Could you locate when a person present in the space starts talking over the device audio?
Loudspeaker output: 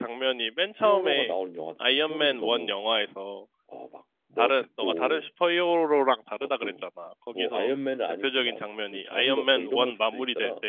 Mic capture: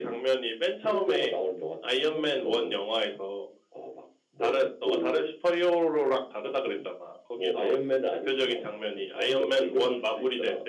none

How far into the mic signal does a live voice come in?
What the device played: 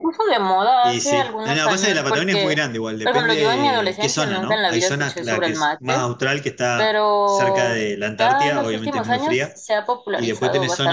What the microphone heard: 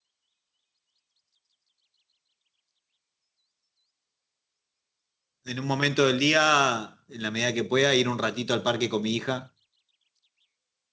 5.4 s

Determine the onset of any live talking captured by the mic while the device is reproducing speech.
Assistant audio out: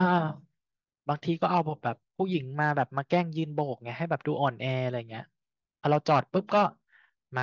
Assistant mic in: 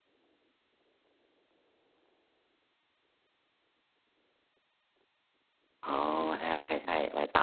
5.8 s

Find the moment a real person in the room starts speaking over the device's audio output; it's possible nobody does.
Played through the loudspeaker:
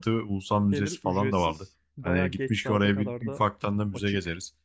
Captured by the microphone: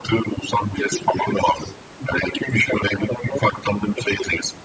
none

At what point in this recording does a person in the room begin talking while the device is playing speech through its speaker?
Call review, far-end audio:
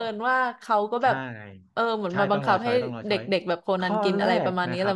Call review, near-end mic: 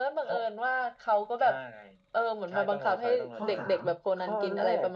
3.3 s

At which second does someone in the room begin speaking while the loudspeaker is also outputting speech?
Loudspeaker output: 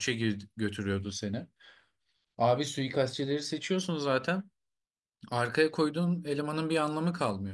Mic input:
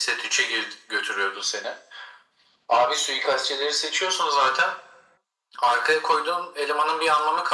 none

